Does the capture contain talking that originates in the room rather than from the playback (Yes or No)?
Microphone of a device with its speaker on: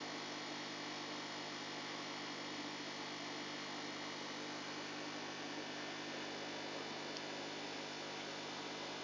No